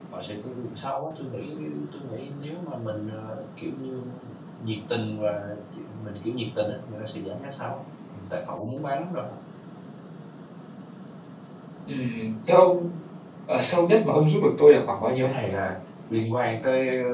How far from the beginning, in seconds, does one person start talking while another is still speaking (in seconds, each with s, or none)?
none